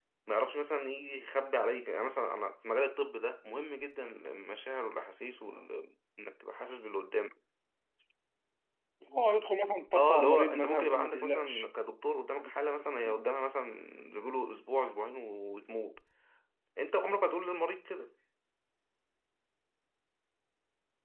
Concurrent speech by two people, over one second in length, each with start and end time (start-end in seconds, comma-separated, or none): 9.9-11.7